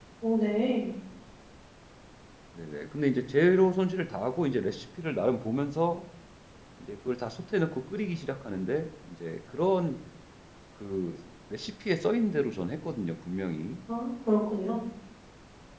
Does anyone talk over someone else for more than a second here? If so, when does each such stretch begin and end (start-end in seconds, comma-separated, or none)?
none